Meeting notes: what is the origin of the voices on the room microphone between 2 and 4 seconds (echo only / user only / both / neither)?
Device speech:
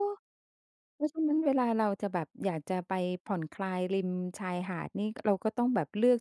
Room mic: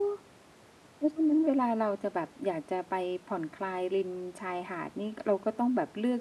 echo only